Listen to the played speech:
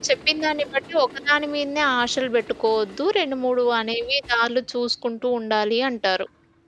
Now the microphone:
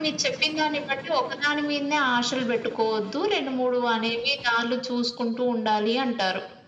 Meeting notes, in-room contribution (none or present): none